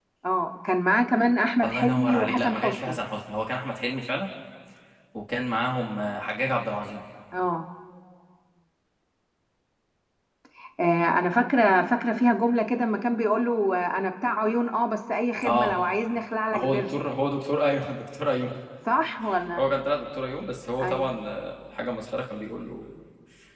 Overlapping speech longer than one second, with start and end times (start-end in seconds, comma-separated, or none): 1.6-3.0